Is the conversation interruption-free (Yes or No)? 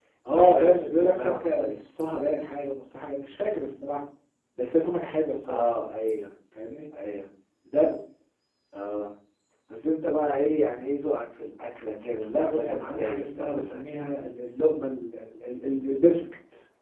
No